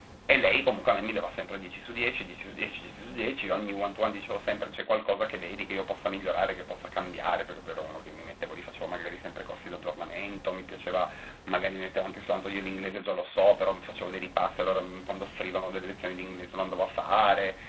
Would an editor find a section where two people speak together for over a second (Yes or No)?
No